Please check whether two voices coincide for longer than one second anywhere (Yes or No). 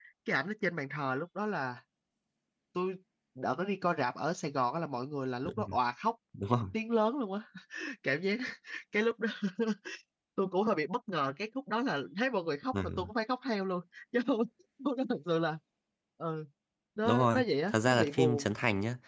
Yes